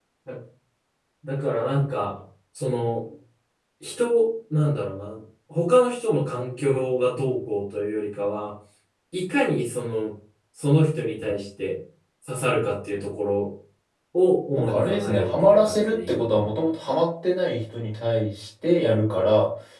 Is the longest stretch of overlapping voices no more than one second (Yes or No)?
No